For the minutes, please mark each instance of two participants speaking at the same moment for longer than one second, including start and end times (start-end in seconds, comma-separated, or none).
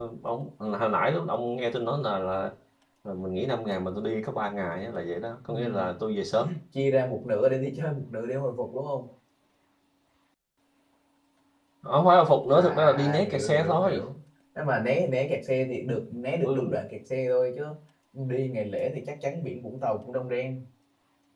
12.5-14.0